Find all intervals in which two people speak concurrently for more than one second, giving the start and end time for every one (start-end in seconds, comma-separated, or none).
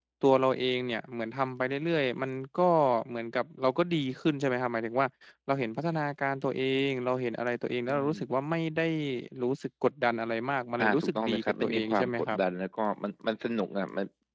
10.8-12.4